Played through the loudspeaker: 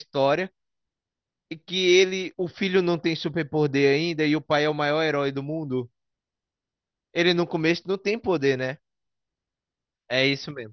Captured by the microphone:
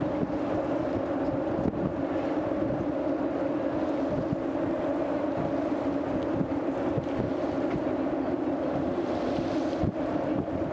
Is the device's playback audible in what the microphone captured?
No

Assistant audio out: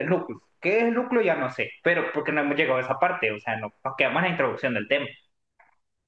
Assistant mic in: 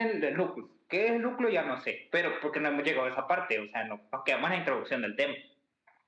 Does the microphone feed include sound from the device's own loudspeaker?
Yes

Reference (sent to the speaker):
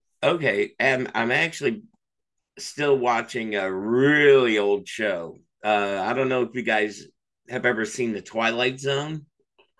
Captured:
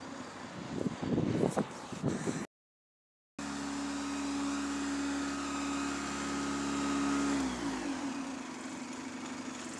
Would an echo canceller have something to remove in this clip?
No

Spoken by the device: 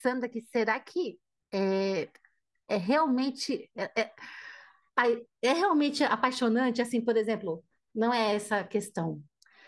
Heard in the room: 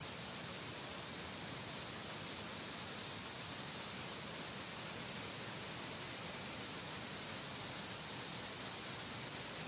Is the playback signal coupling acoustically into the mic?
No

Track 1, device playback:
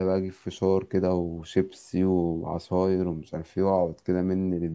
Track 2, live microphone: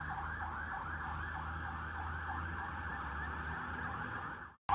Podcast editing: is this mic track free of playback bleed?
Yes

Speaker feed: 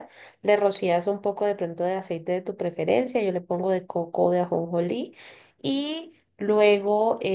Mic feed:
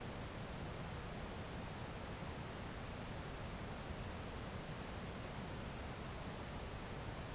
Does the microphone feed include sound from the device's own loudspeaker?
No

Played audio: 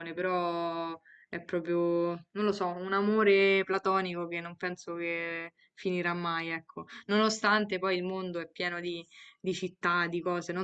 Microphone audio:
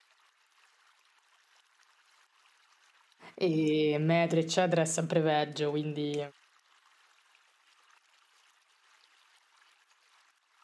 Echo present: No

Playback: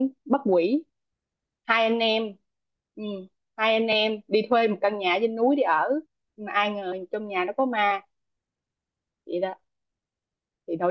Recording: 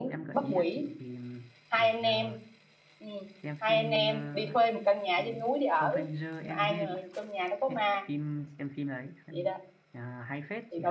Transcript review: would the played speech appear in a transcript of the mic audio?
Yes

